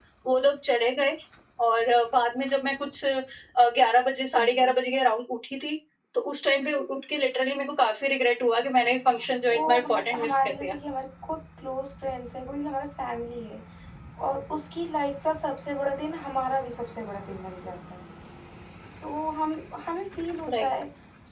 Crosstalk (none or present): present